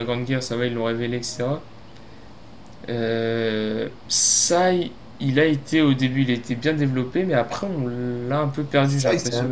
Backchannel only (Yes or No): No